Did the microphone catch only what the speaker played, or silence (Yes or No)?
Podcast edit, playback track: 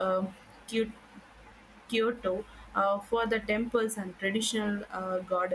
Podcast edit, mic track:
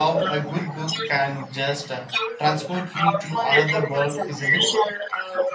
No